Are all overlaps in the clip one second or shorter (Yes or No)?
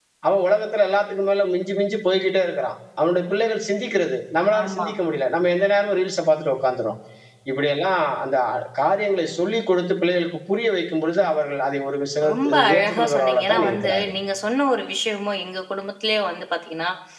No